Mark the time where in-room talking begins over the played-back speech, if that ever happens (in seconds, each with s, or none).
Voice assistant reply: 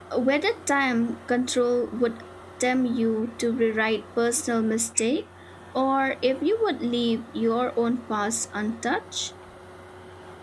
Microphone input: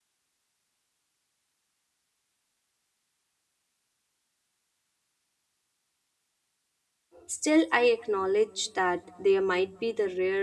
7.3 s